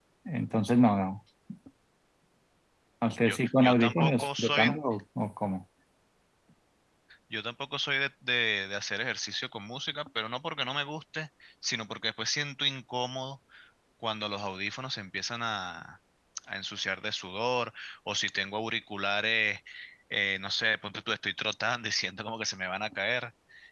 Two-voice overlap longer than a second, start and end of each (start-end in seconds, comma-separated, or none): 3.2-4.7